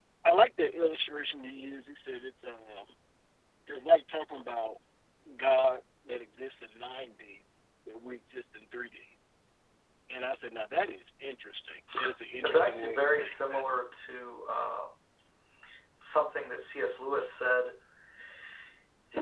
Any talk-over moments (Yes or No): Yes